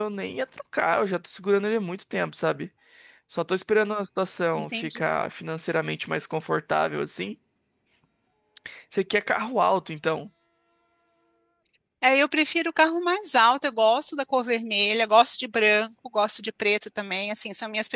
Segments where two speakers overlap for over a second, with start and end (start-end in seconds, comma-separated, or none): none